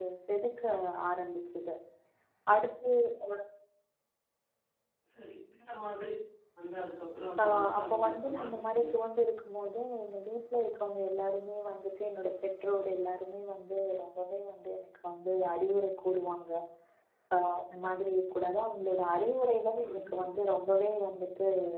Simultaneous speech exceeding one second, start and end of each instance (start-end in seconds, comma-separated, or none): 7.4-8.9